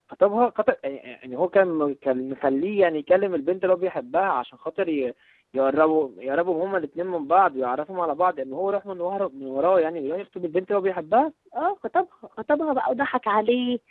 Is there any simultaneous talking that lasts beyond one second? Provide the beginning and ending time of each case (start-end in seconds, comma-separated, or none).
none